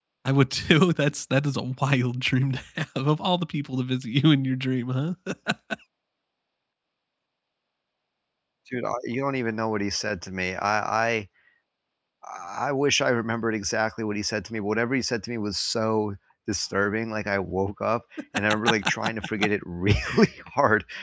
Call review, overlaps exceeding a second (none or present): none